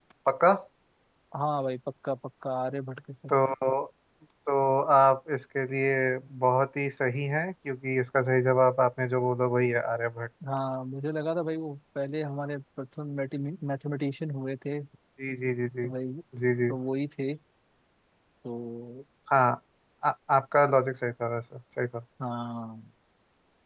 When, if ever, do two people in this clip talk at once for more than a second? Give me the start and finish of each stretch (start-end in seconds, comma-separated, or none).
none